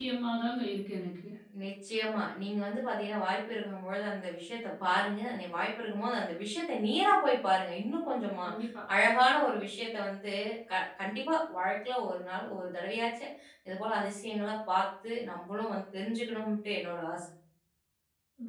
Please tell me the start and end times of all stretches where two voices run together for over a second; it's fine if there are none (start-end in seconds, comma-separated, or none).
none